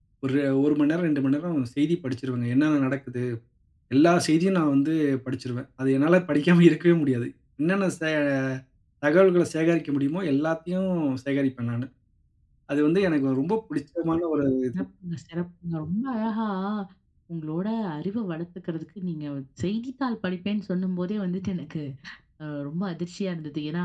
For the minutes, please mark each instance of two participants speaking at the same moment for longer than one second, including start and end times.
none

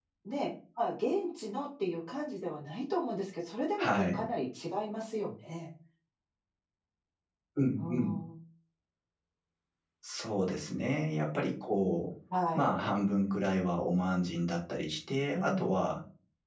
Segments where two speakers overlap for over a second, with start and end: none

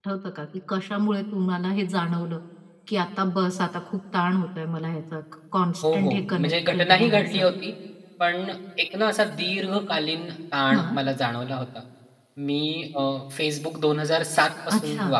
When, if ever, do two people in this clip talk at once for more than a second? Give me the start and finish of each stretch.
5.9-7.4

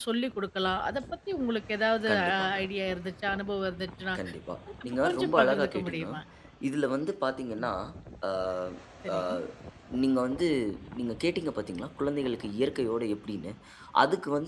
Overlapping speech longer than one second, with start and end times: 4.8-6.0

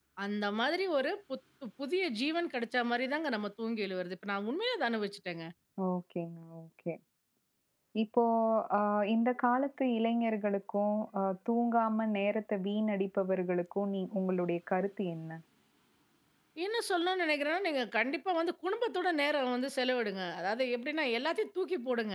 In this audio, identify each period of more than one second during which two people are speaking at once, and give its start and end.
none

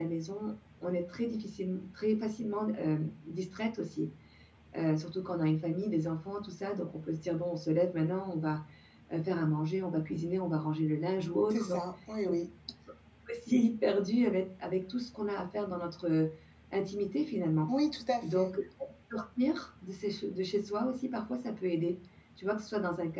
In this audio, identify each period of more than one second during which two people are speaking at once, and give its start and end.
none

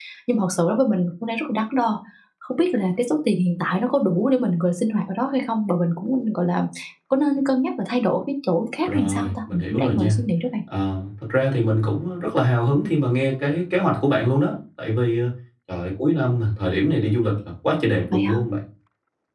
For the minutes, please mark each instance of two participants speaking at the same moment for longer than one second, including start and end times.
8.8-10.2

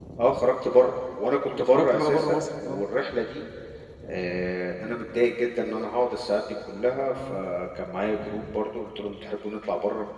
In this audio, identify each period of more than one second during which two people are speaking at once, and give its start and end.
1.6-2.8

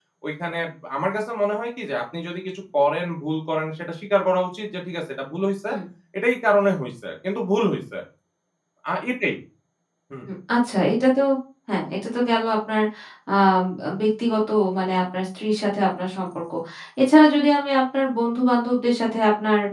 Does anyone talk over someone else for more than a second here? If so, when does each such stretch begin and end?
none

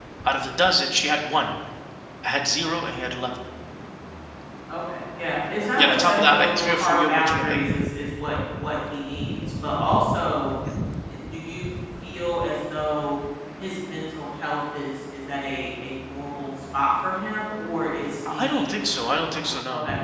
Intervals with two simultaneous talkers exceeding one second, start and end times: 5.8-7.6

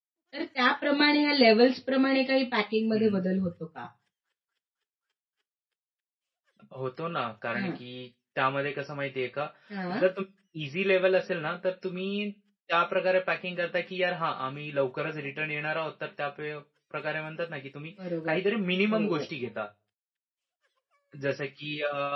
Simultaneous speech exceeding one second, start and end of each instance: none

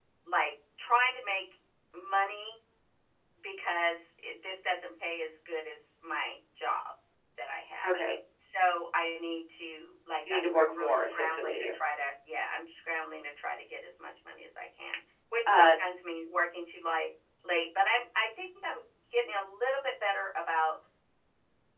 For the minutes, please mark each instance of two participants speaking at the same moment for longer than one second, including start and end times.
10.3-11.7

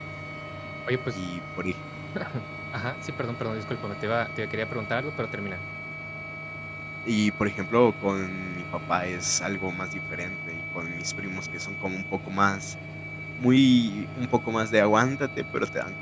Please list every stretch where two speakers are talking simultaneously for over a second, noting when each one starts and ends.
none

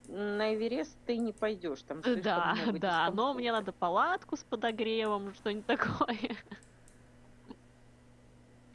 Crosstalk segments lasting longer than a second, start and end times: 2.0-3.5

